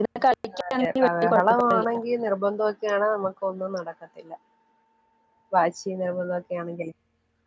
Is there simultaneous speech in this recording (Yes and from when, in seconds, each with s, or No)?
Yes, from 0.6 s